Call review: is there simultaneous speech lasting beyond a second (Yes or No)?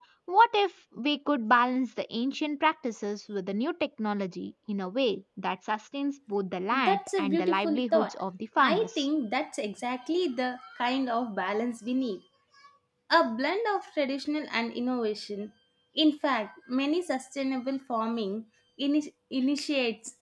Yes